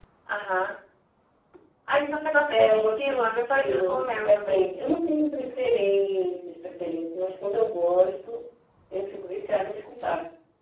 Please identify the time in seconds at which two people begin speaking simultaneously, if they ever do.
2.5 s

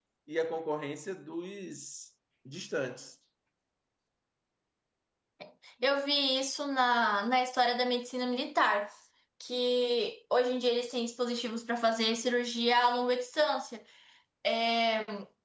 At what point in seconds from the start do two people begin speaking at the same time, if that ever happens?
none

